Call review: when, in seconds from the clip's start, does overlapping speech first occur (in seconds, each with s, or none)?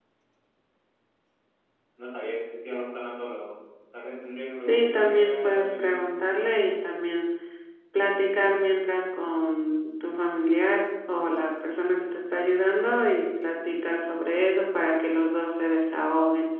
4.7 s